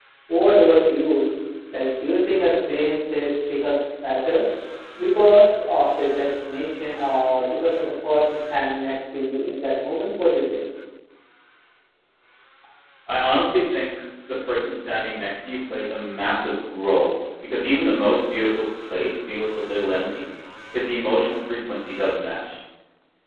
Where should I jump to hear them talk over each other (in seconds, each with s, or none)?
none